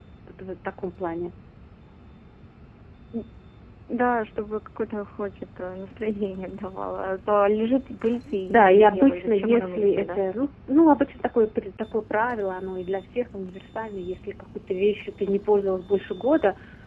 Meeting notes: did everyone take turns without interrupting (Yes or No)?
No